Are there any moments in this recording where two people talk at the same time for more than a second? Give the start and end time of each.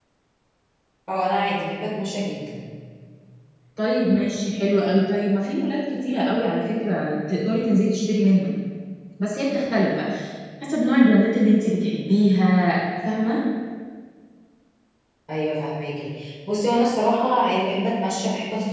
none

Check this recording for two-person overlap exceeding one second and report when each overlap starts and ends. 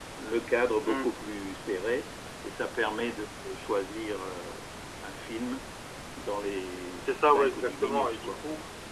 7.1-8.4

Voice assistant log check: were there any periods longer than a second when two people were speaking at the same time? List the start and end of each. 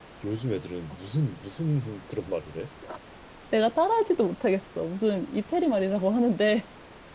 none

